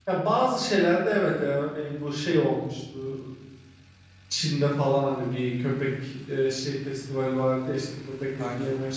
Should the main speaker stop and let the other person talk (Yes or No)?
No